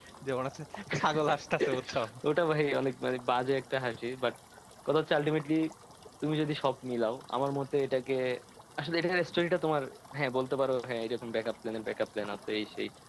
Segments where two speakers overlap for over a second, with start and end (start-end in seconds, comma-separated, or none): none